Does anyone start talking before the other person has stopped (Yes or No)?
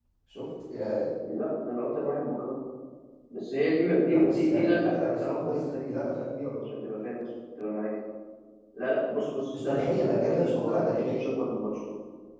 Yes